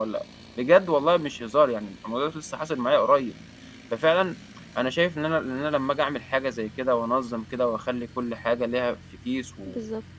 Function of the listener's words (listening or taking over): listening